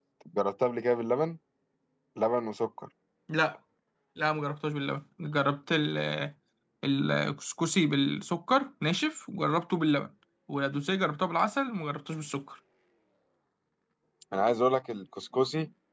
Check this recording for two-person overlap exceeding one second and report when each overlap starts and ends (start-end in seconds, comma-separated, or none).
none